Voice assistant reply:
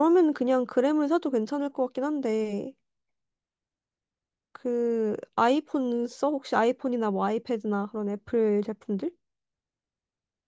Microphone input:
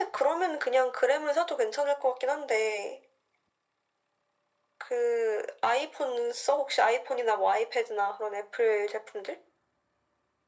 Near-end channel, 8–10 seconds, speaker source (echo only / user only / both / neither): echo only